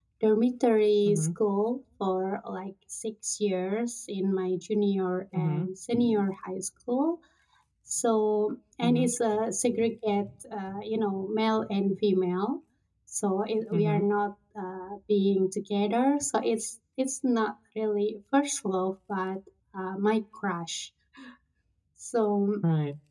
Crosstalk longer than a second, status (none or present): none